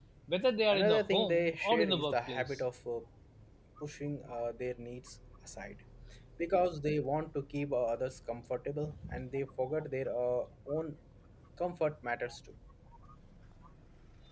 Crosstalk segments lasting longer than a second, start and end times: 0.7-2.6

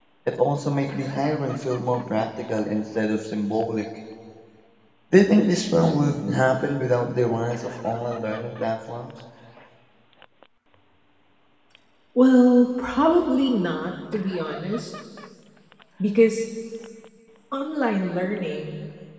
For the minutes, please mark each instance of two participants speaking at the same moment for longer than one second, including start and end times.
none

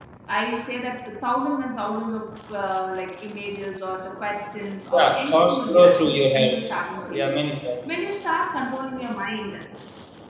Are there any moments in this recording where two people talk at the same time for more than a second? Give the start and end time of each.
4.9-6.6

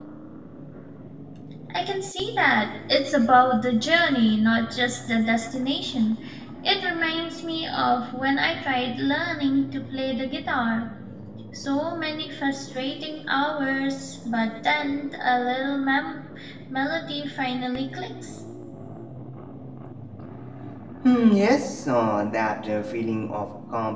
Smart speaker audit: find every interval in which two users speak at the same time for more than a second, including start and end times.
none

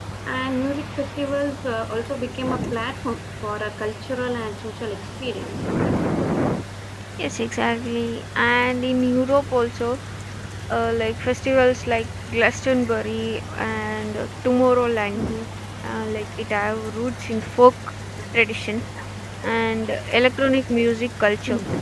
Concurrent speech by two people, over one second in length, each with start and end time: none

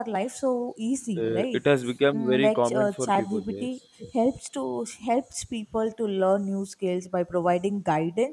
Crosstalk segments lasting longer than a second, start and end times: 2.2-3.7

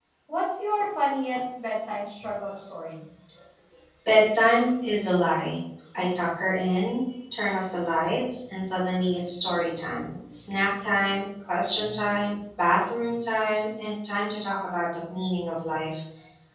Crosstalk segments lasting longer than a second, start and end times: none

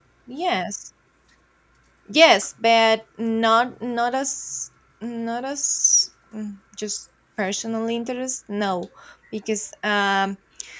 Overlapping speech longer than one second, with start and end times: none

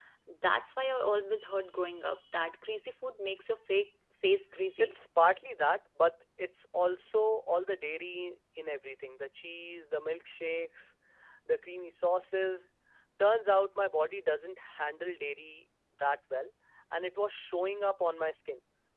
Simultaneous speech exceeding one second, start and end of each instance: none

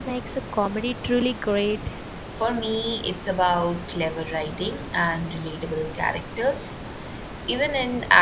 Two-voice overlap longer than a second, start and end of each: none

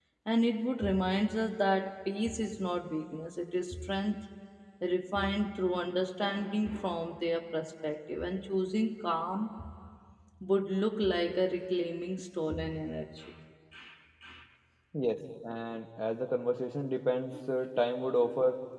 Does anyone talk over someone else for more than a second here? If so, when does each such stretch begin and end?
none

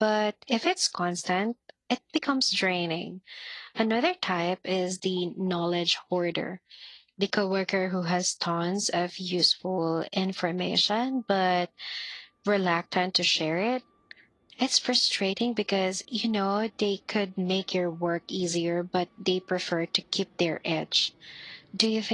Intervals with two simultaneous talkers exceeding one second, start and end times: none

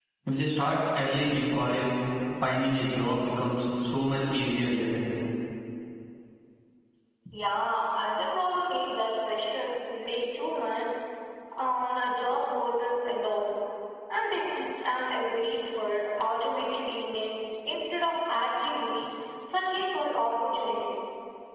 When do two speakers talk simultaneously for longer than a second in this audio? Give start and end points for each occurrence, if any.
none

